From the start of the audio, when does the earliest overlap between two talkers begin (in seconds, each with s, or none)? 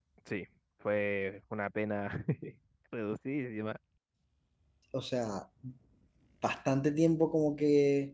none